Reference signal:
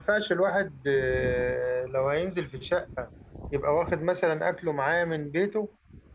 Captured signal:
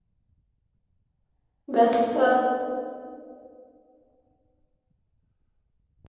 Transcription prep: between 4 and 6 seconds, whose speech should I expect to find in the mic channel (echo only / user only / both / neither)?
neither